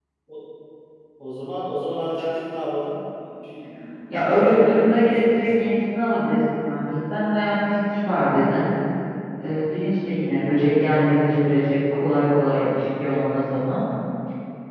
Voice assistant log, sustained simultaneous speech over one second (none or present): present